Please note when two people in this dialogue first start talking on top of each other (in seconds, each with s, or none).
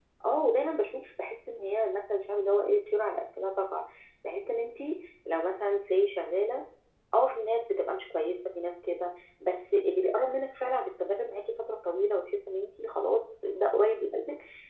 none